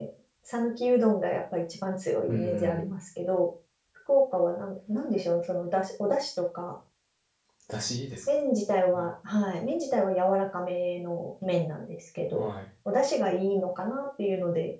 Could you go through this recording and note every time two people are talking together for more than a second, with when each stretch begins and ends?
none

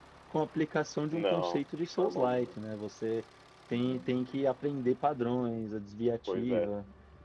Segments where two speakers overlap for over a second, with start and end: 1.1-2.6

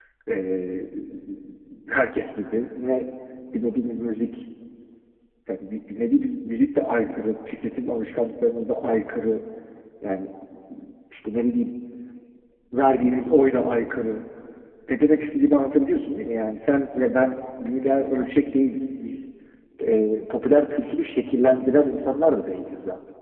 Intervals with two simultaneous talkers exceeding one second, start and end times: none

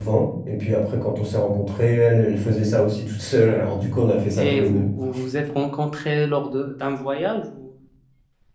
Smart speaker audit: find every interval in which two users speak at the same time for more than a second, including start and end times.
none

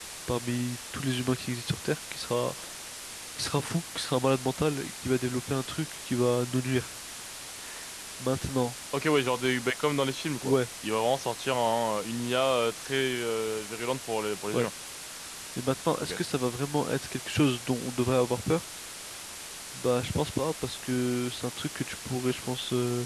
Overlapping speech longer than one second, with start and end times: none

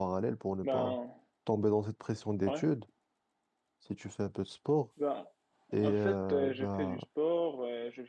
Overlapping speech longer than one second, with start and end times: 5.8-7.0

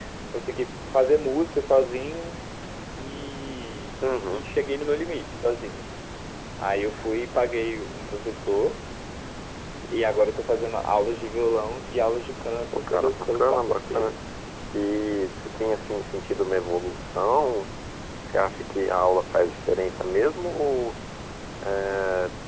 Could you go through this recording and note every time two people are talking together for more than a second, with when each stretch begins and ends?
12.7-14.1

